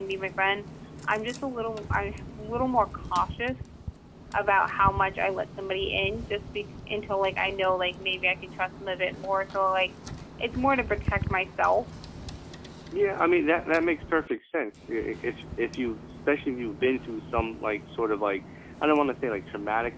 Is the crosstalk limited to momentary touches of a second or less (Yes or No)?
Yes